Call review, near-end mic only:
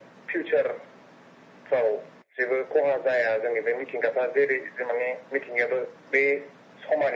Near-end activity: none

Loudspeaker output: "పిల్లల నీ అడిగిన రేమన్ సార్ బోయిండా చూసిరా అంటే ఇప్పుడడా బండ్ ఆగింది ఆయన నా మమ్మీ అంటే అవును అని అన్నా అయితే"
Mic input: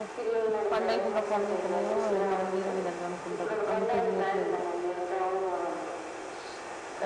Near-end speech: present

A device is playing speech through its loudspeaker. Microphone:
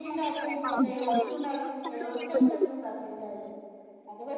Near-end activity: present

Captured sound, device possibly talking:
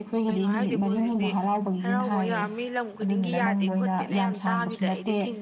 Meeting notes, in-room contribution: present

